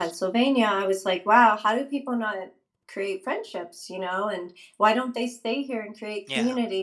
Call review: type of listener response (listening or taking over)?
listening